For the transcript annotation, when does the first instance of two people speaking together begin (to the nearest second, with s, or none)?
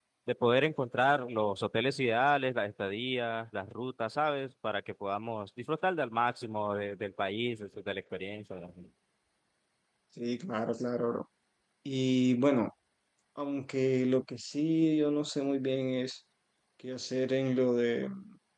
none